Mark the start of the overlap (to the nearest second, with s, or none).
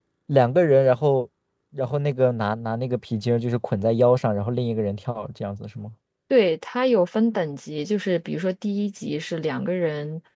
none